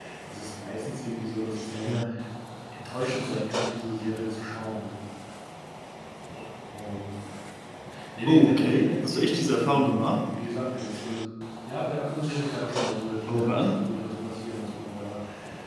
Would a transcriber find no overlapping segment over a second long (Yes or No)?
No